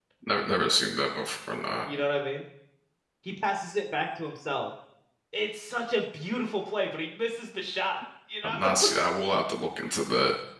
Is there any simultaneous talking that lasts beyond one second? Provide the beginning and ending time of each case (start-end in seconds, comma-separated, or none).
none